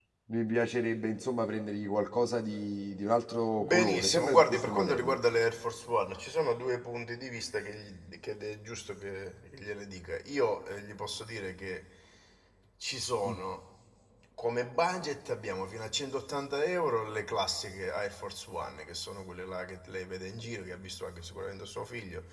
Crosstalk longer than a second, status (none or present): present